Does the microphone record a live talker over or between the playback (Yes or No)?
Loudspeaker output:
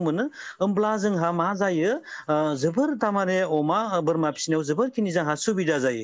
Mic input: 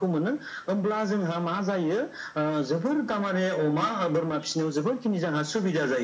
No